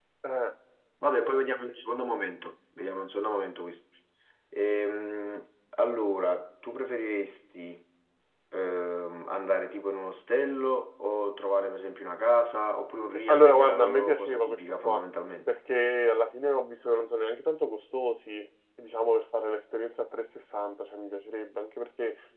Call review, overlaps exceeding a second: present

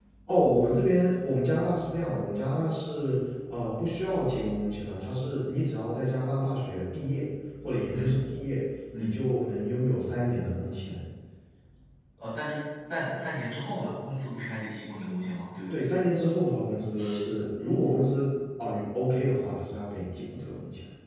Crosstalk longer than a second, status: none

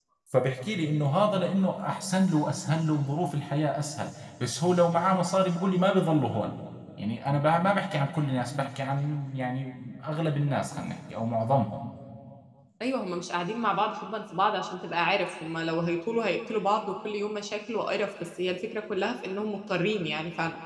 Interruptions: none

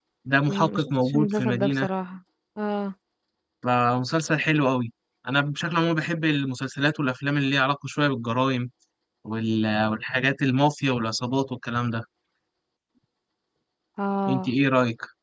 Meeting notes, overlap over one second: present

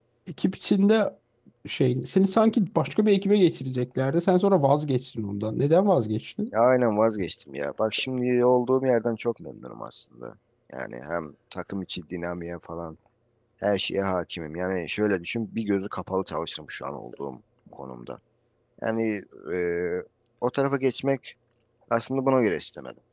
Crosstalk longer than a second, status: none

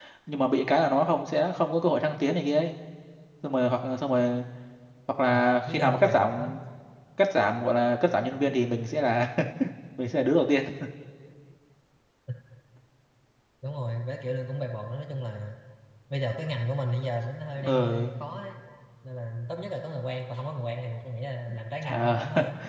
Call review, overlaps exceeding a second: present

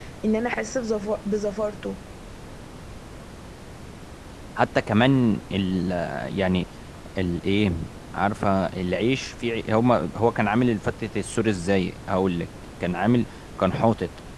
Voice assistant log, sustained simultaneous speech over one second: none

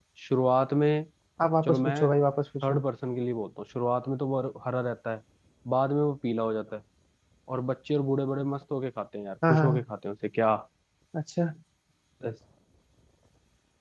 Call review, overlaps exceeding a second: none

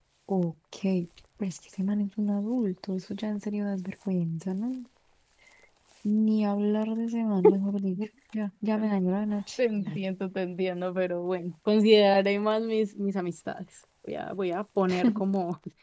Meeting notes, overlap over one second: none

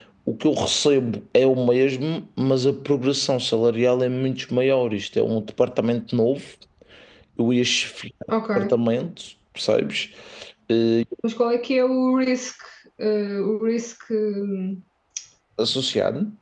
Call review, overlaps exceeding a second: none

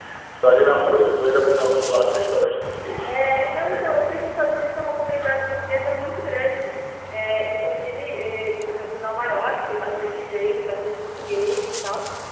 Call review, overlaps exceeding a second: none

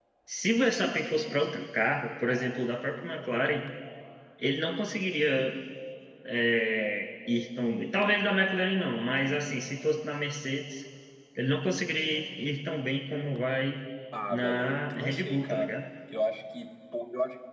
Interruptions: present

